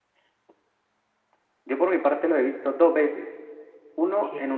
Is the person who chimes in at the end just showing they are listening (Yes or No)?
Yes